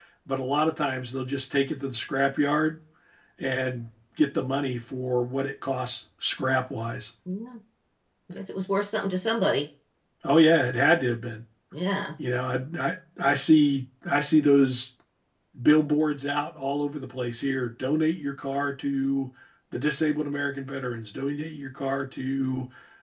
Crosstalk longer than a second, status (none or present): none